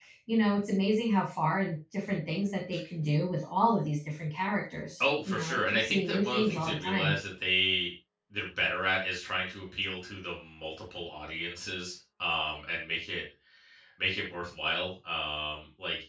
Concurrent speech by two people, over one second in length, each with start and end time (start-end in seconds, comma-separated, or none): 5.0-7.1